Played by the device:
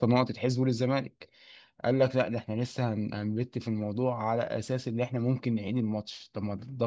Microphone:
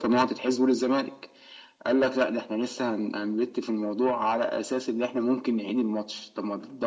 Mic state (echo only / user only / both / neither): echo only